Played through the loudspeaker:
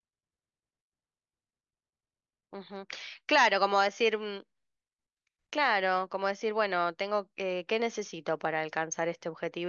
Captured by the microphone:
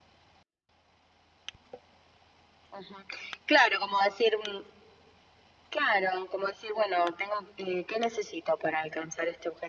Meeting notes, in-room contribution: none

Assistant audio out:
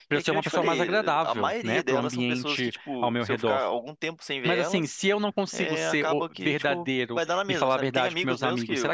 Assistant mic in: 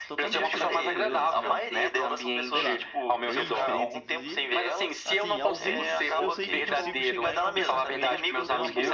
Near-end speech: present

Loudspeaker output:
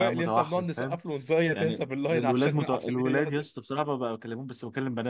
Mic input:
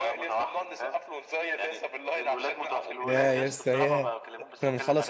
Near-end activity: present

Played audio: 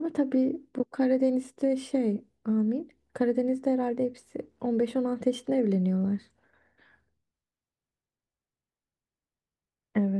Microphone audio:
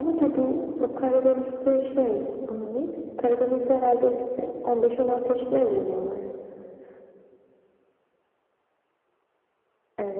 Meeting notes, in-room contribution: none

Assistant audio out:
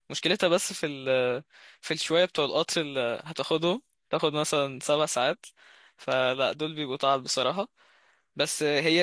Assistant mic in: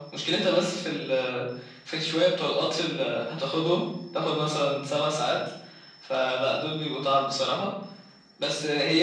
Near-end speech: none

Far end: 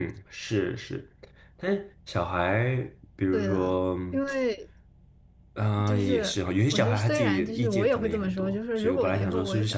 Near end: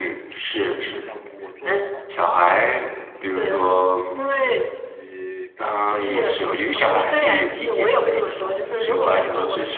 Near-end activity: present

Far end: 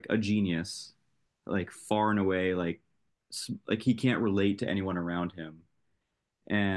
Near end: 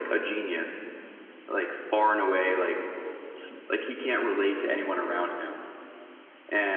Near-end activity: none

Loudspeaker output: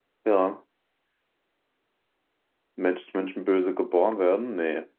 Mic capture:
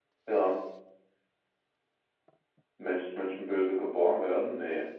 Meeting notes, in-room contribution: none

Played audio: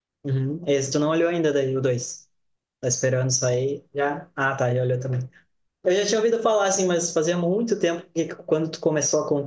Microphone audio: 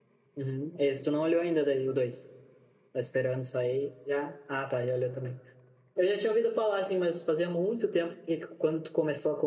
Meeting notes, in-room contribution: none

